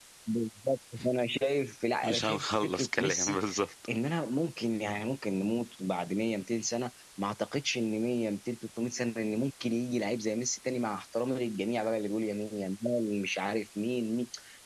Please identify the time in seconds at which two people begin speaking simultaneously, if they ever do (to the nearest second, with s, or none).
2 s